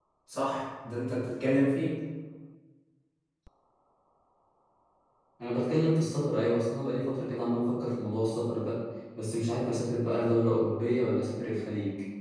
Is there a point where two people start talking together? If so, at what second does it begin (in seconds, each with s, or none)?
none